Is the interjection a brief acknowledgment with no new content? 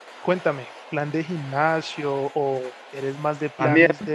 No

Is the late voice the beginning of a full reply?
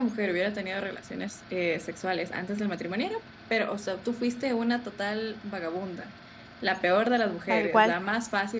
No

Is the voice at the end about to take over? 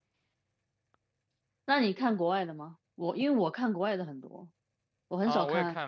Yes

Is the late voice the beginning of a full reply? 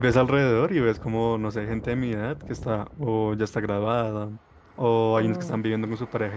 No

